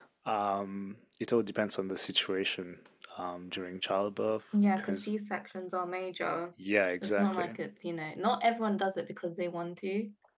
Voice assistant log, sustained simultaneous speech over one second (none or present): none